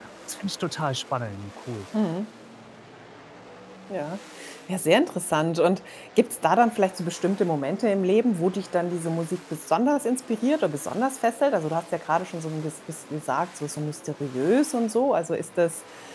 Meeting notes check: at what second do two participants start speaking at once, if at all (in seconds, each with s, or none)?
none